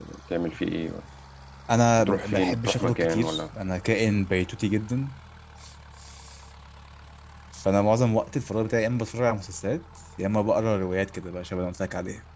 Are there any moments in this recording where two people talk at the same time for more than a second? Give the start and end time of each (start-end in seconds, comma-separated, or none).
2.0-3.4